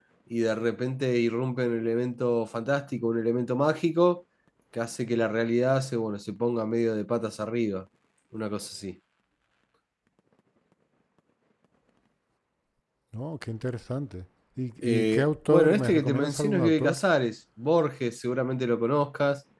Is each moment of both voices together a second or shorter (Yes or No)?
No